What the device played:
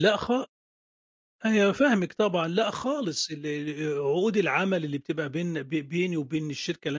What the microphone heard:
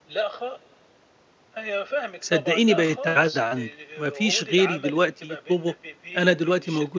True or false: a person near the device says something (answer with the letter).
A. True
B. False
A